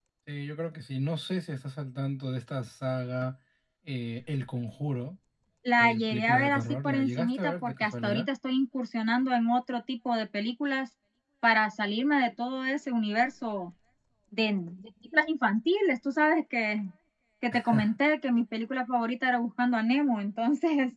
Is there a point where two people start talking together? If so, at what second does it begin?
5.8 s

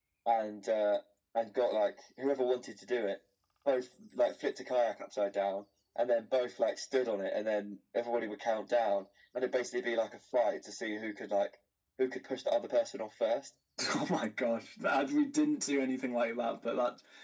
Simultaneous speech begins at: none

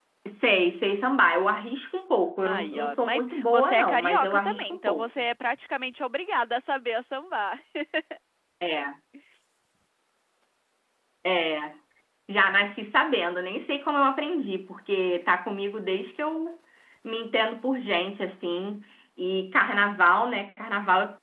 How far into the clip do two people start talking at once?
2.4 s

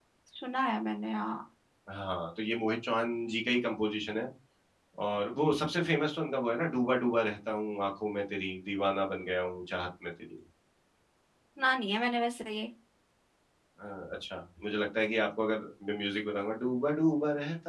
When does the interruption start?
none

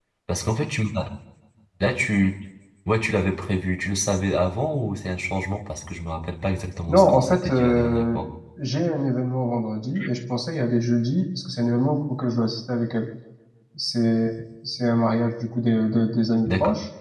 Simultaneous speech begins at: 6.9 s

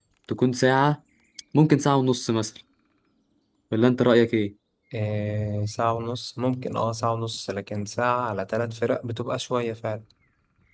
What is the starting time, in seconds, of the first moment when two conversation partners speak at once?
none

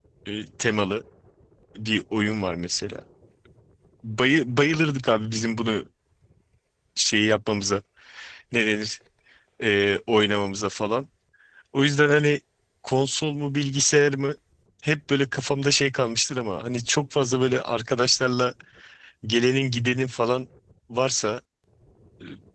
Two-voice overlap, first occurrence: none

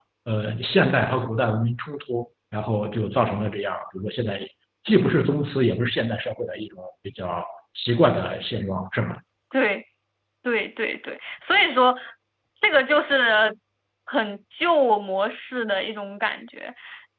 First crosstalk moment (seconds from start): none

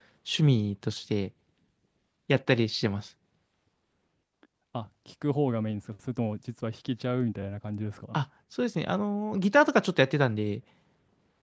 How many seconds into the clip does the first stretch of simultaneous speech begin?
none

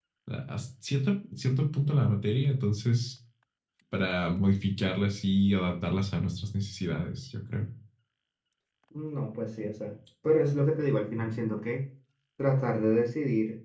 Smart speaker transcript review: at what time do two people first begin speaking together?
none

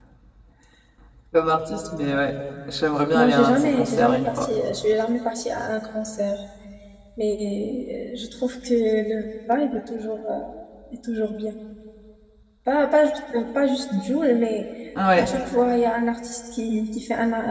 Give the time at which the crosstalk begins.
3.1 s

